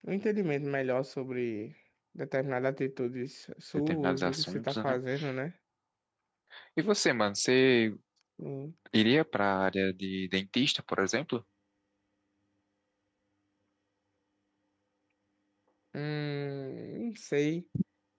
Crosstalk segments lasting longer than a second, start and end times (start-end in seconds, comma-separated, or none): 3.8-5.0